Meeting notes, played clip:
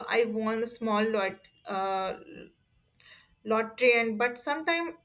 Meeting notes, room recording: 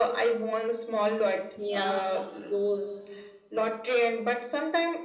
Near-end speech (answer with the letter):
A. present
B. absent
A